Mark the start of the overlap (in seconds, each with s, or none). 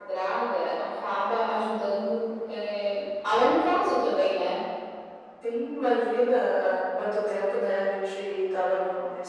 none